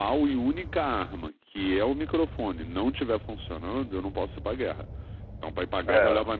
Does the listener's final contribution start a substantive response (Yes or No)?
No